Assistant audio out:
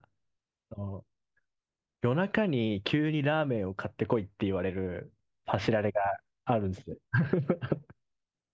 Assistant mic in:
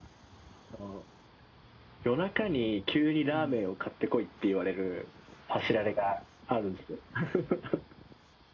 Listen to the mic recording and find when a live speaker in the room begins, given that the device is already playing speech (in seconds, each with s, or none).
3.3 s